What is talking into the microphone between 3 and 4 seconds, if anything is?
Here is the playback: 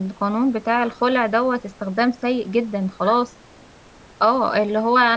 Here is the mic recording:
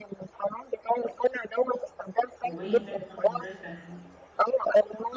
both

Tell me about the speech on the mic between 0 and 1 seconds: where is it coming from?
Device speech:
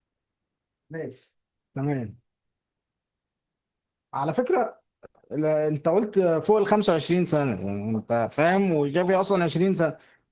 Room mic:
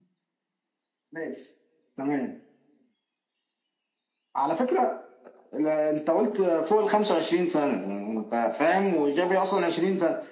neither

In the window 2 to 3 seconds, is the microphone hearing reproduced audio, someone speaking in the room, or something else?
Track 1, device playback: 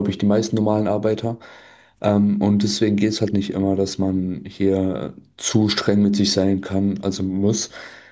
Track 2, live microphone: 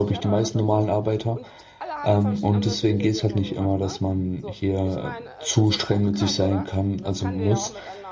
both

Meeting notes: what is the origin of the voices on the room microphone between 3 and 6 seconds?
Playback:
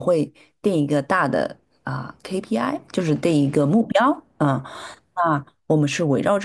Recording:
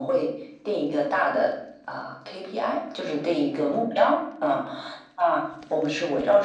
echo only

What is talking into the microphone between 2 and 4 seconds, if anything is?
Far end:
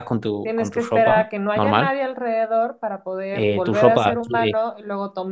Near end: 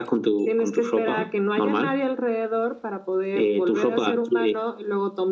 echo only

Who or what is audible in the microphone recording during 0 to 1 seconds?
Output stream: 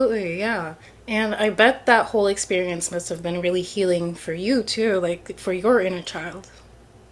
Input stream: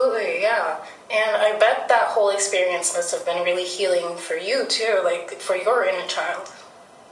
echo only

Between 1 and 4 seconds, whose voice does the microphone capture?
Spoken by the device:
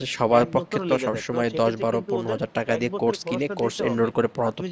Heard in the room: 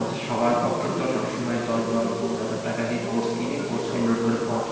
echo only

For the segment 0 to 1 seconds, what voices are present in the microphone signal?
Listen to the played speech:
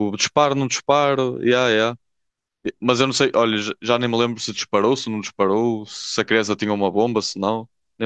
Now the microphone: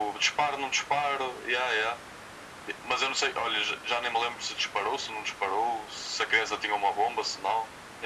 echo only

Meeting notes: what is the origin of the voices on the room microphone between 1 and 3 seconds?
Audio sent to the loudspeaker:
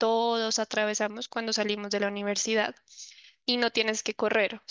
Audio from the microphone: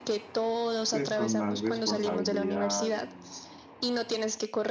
both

